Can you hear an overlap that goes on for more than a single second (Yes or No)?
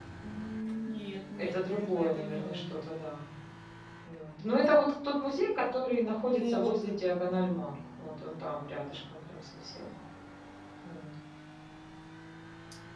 Yes